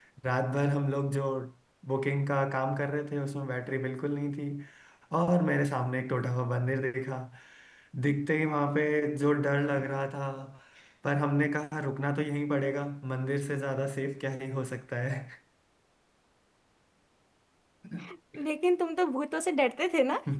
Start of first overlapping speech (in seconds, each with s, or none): none